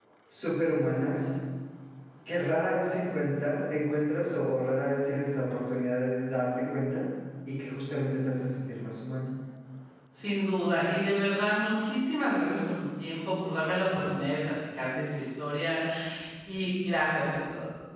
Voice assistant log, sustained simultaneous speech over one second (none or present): none